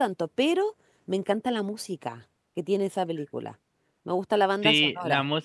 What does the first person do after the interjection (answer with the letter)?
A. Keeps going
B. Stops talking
B